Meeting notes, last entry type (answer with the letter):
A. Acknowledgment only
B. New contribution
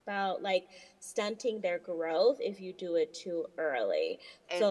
A